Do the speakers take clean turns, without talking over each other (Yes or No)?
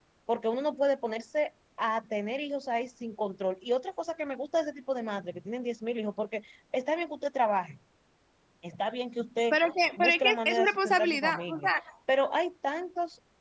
No